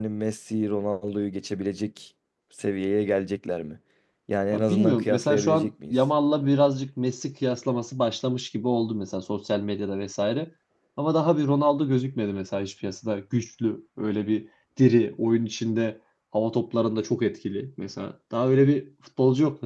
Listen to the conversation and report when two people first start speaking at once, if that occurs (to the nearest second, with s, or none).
5 s